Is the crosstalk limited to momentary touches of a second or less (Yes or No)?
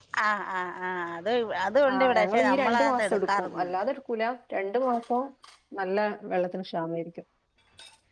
No